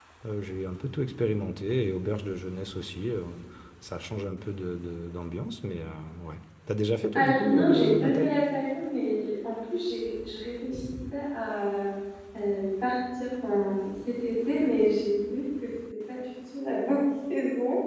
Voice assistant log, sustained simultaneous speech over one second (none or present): present